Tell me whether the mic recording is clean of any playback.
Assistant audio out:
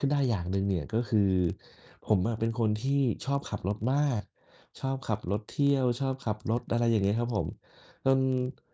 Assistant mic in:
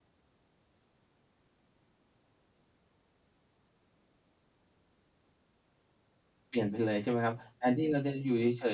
Yes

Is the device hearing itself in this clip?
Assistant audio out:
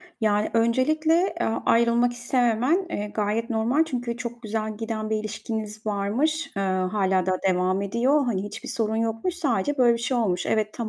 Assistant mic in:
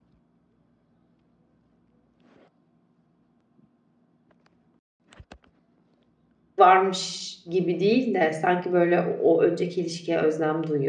No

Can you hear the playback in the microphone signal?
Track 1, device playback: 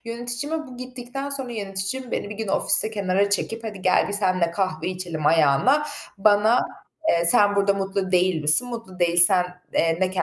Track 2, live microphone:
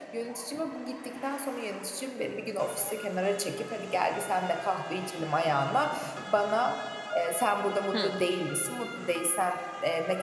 Yes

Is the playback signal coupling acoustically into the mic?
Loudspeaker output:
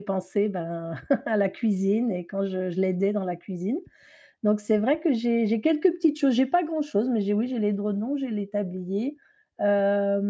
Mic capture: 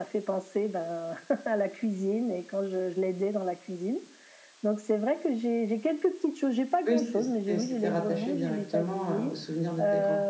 Yes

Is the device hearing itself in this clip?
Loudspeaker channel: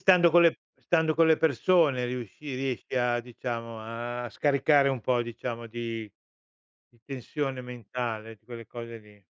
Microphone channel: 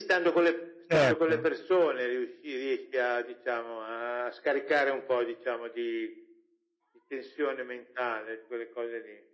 Yes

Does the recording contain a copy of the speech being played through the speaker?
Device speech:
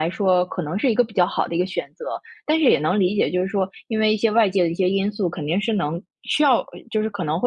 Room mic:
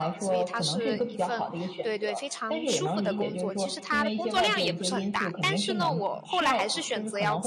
Yes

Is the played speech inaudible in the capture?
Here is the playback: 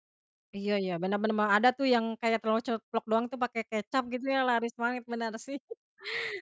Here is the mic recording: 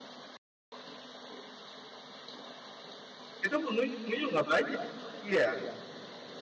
Yes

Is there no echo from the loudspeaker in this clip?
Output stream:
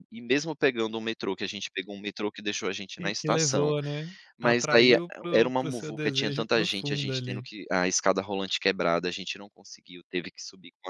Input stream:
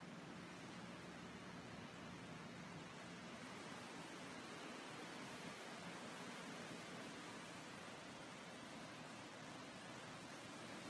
Yes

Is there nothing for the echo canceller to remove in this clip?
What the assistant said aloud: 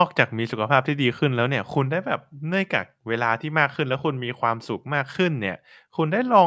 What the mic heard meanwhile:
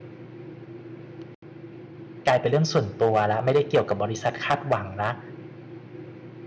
Yes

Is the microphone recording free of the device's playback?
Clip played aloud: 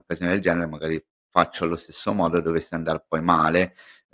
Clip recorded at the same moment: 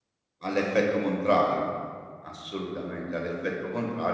Yes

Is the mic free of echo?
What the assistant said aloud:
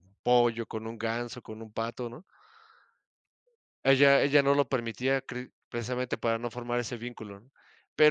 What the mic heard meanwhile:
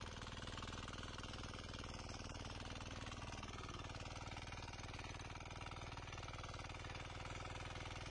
Yes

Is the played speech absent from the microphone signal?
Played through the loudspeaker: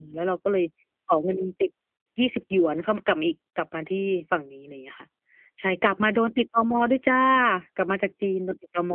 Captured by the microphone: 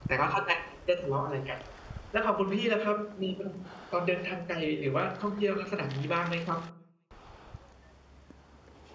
Yes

